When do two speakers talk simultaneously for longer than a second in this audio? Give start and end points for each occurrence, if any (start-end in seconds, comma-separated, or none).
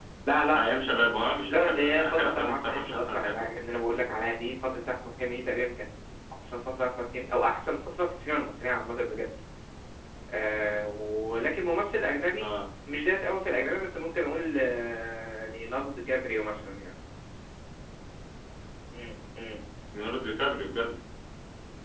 1.5-3.4